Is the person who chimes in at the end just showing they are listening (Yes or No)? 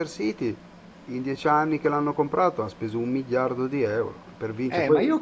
No